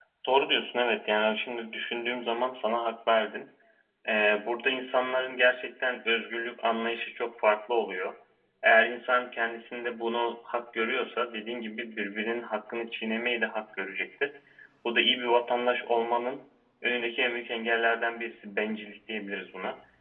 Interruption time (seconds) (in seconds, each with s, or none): none